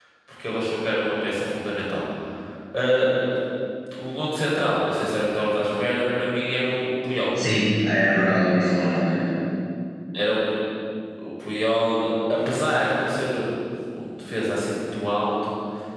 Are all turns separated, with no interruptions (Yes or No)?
Yes